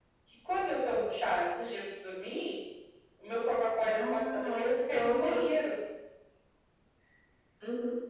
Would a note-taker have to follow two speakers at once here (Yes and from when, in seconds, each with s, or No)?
Yes, from 3.8 s